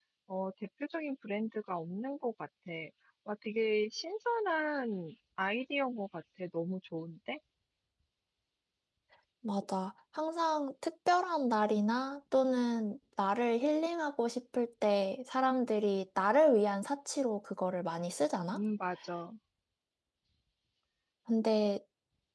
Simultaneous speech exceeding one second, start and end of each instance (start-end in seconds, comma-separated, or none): none